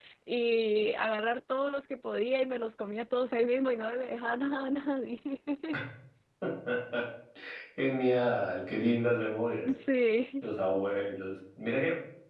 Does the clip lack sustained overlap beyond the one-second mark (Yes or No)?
Yes